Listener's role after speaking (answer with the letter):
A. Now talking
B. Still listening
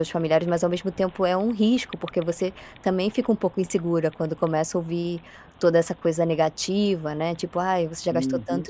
B